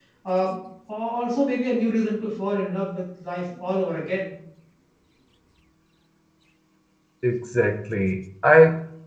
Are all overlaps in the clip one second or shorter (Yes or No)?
Yes